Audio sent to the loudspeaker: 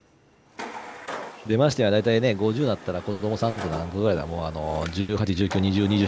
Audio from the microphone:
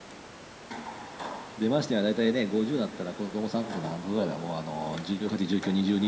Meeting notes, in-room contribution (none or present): none